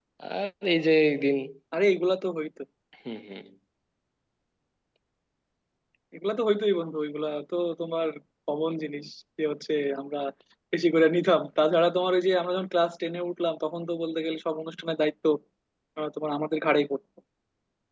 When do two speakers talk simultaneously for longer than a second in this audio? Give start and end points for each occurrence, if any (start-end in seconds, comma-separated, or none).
none